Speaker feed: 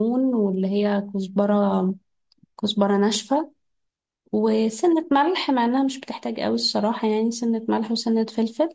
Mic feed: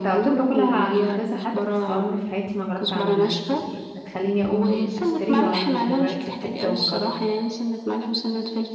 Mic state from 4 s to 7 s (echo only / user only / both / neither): both